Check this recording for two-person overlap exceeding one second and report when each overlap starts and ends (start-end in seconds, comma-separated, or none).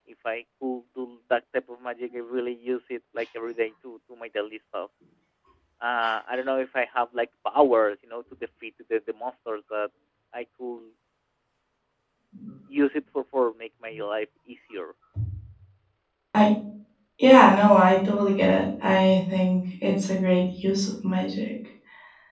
none